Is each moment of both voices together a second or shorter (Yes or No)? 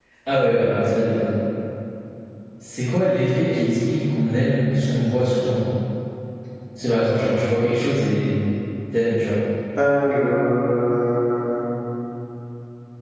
Yes